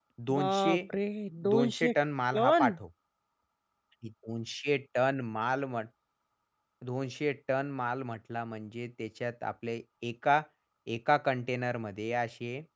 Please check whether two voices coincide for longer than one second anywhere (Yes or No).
No